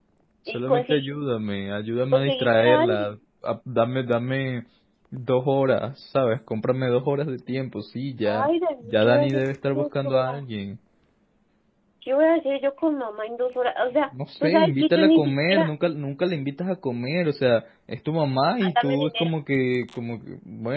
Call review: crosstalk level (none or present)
present